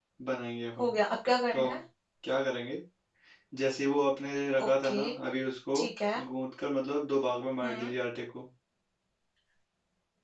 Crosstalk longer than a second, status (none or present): none